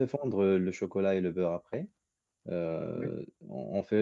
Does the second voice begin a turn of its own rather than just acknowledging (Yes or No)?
No